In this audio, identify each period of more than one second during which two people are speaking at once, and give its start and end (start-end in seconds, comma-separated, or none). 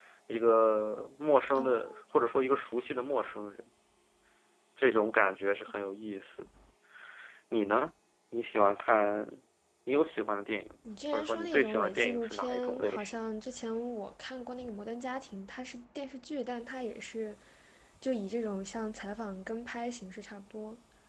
11.1-13.2